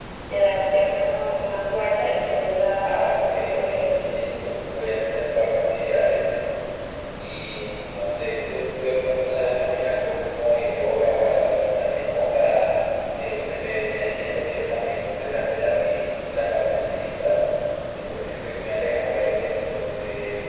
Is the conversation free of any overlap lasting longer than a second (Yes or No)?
No